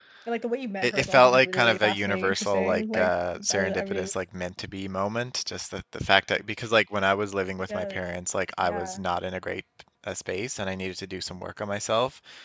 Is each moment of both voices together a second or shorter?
No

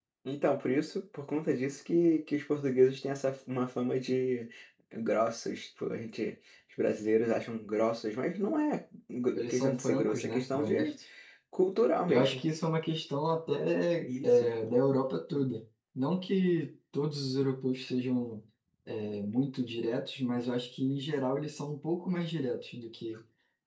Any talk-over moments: Yes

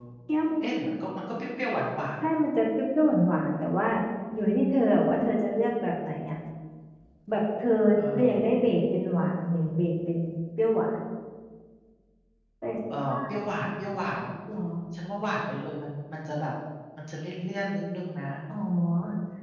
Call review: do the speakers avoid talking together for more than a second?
Yes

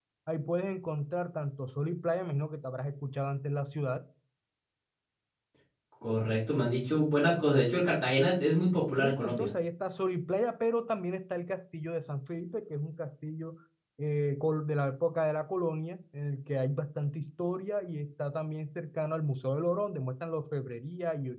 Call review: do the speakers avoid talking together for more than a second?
Yes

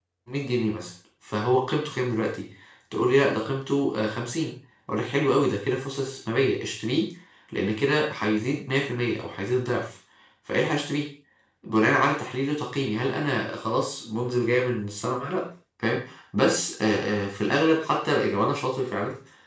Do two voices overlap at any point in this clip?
No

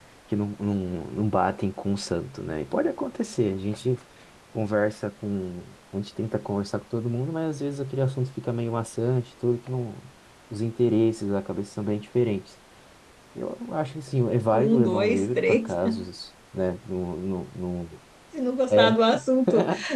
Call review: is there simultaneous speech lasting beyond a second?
Yes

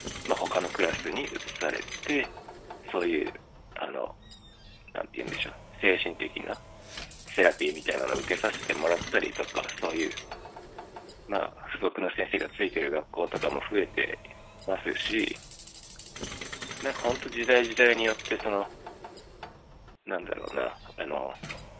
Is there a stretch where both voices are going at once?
No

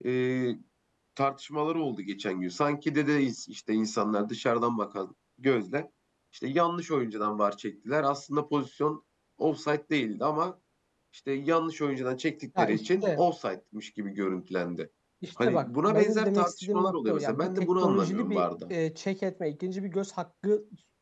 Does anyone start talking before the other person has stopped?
Yes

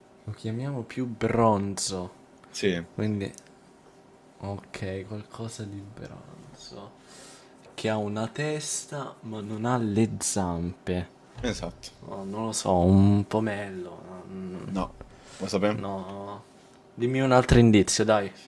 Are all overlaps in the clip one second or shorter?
Yes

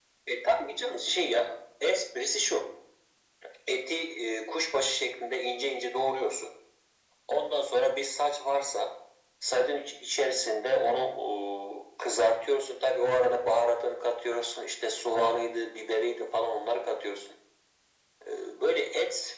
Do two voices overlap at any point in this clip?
No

